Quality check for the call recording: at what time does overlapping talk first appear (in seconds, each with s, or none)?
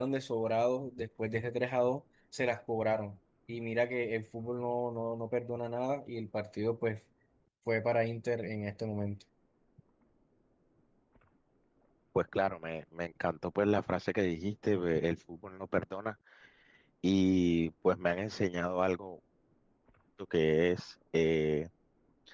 none